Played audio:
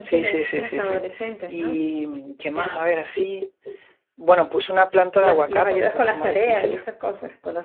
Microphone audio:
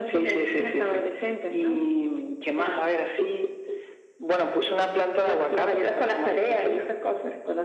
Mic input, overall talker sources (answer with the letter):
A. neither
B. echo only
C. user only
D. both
B